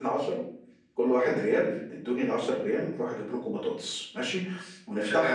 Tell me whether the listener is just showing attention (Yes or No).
Yes